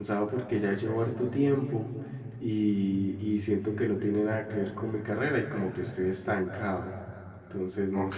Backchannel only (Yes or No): No